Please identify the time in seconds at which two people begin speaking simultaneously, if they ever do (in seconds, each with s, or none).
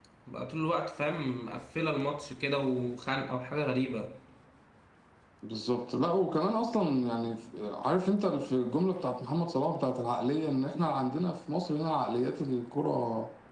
none